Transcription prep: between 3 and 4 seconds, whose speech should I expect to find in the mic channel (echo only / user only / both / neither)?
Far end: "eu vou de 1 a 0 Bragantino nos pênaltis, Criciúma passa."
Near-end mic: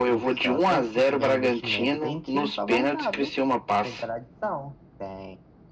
both